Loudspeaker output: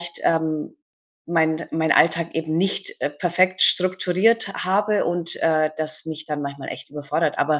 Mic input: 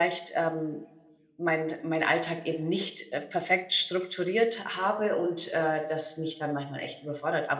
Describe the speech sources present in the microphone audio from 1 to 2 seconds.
echo only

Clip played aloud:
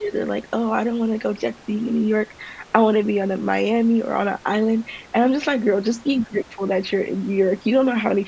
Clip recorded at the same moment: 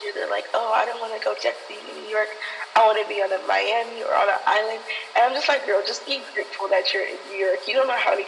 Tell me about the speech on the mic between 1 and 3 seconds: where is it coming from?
echo only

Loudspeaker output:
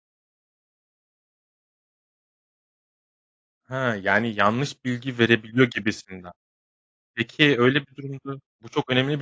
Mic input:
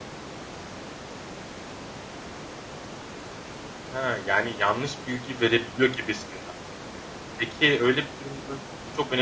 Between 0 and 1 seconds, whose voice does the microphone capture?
neither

